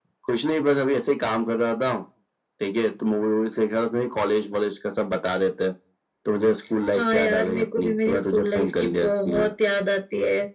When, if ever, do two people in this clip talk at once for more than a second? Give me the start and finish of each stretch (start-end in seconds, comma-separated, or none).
7.0-9.5